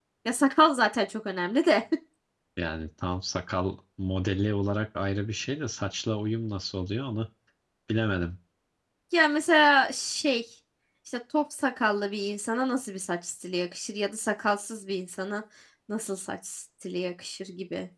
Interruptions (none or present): none